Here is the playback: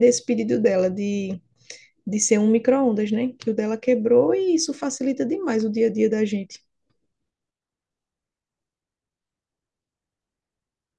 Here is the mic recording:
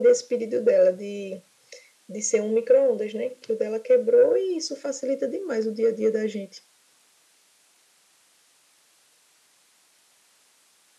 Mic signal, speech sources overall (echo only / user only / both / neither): echo only